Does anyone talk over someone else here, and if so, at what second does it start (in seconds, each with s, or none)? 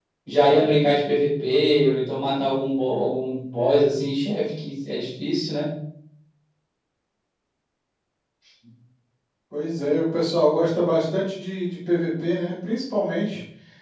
none